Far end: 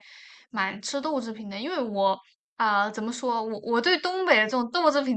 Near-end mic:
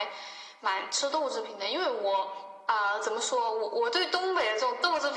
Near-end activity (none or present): none